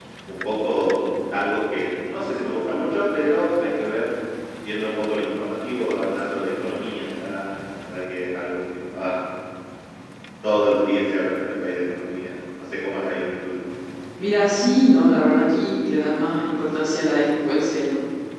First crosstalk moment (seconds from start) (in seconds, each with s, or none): none